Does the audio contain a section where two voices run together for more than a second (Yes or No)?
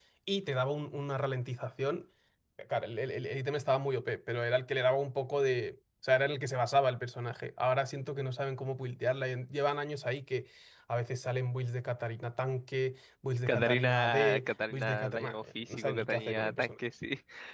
Yes